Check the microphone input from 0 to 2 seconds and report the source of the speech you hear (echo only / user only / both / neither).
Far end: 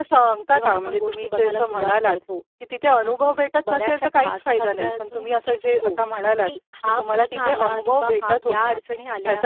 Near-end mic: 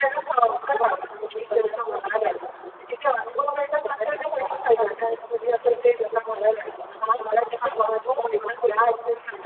echo only